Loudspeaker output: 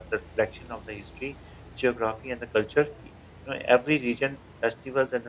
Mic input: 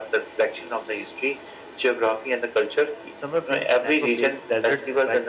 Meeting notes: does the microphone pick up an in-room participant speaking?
Yes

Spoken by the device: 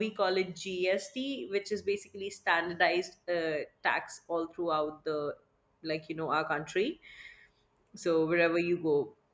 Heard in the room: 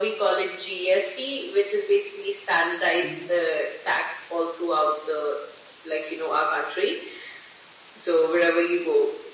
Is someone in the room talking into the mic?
Yes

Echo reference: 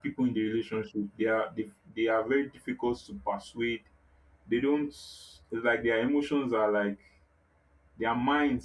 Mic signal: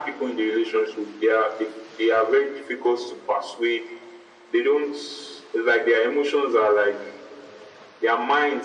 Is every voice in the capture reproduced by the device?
Yes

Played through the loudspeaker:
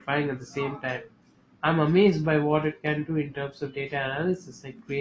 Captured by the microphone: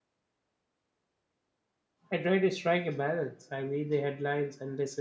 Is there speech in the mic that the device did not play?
Yes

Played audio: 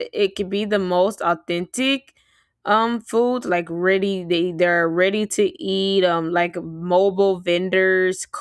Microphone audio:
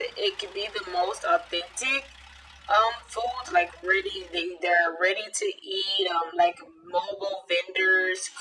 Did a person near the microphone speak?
No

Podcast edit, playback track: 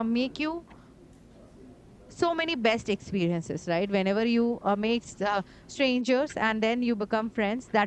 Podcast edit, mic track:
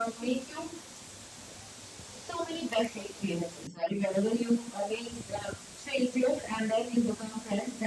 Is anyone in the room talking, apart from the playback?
No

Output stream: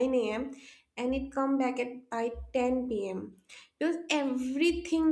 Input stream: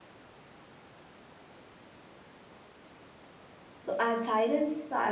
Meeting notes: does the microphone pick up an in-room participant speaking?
Yes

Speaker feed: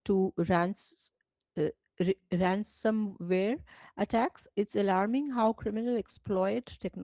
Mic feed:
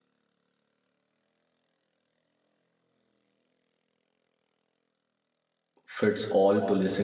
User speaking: Yes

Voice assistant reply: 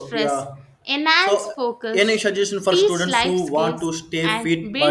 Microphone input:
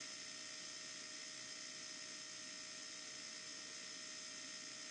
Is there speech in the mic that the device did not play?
No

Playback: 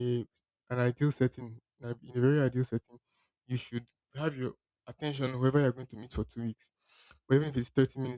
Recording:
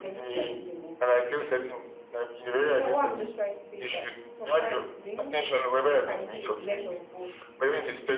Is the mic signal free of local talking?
No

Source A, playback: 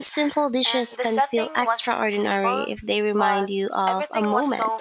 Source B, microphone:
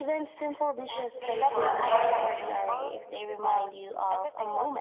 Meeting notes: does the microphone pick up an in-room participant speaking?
Yes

